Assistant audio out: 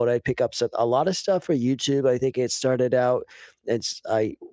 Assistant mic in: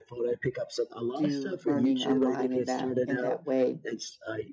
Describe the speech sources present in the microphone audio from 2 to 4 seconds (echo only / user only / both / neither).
both